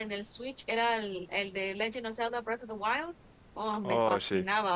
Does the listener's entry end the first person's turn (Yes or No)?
No